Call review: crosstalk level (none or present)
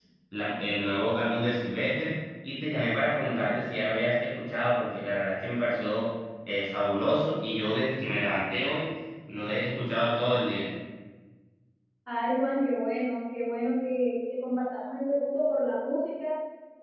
none